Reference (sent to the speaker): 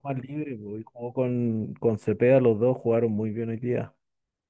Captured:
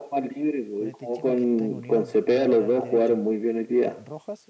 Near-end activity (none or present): present